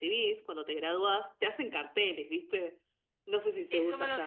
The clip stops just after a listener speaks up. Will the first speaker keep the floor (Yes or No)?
No